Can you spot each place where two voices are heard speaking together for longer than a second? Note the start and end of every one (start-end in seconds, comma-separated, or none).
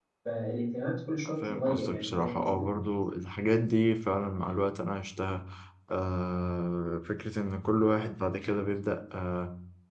1.3-2.7